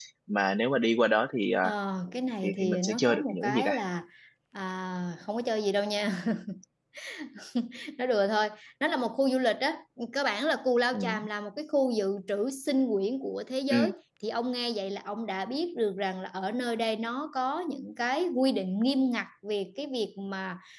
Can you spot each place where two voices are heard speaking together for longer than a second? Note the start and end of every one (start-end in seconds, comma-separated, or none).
2.4-3.7